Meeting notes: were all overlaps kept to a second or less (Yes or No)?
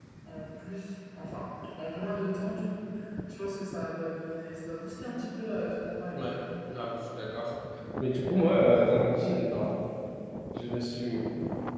Yes